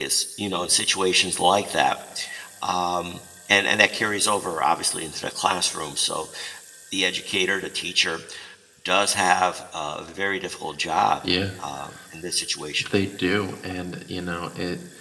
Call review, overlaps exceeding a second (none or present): none